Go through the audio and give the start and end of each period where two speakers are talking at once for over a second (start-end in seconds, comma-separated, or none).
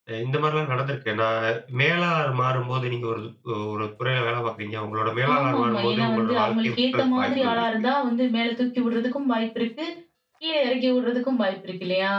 5.3-7.6